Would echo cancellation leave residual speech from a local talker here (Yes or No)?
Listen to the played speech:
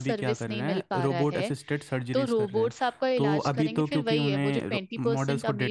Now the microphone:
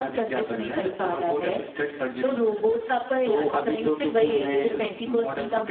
No